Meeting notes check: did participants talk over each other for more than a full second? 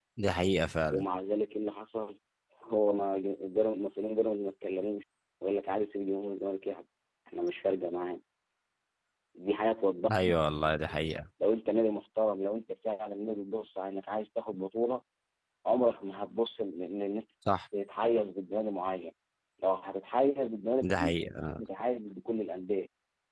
No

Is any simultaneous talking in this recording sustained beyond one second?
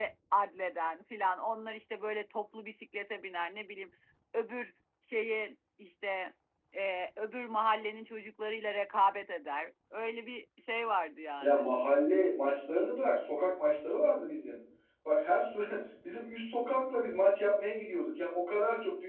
No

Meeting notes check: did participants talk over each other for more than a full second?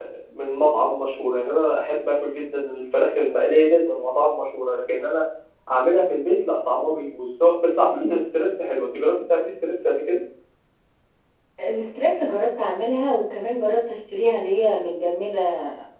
No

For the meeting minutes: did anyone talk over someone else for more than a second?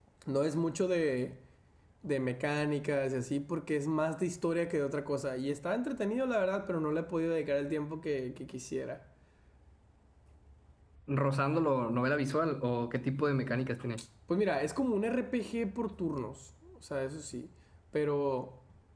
No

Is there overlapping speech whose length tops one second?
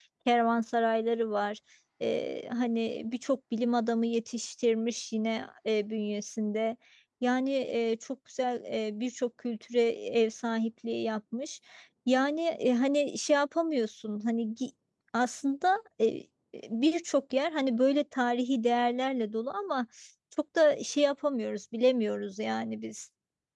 No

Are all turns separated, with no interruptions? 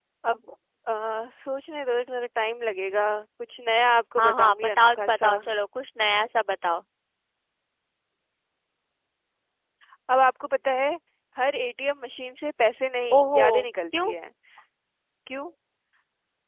No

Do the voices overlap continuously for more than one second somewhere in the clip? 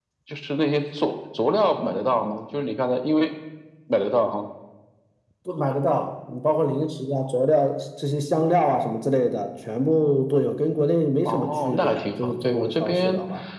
Yes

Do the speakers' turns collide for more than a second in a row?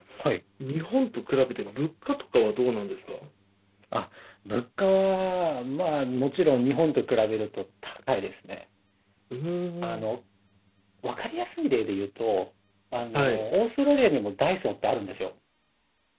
No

